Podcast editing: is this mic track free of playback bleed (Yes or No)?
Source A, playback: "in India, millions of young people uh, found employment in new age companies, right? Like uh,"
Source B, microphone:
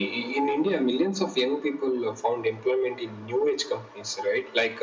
No